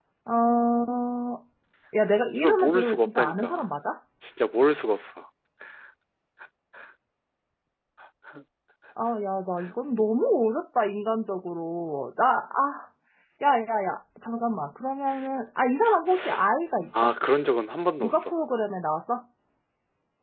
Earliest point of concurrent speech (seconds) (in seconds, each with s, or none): 2.3 s